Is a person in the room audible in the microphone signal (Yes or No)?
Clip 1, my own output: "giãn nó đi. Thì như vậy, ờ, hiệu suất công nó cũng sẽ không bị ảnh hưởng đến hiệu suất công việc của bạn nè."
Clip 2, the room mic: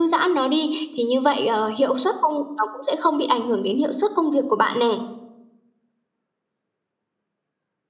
No